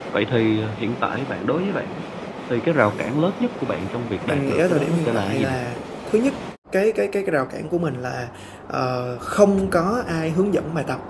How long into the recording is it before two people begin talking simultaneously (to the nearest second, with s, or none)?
4 s